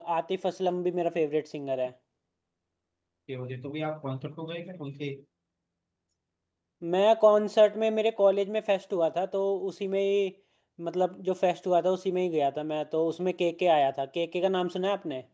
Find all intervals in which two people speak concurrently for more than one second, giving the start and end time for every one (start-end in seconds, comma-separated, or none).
none